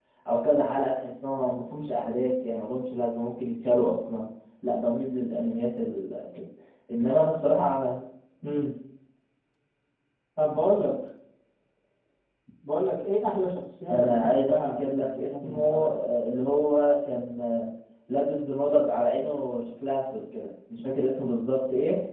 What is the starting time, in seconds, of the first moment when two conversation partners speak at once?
13.9 s

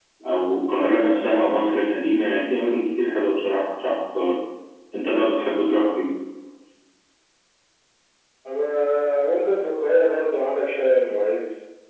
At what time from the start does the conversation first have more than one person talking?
none

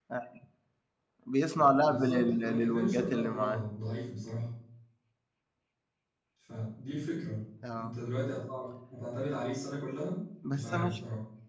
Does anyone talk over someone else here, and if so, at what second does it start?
1.8 s

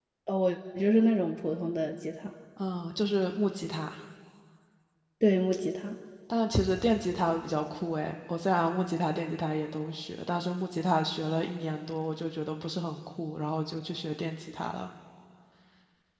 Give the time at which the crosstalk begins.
none

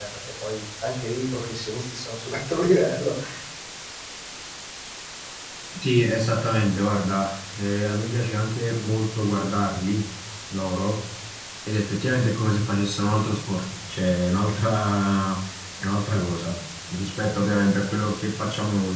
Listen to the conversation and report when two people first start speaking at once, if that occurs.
none

